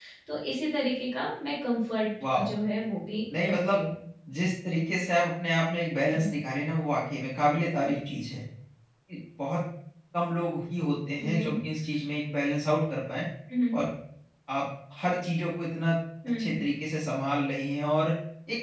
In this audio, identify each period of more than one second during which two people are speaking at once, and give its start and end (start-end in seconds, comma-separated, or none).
none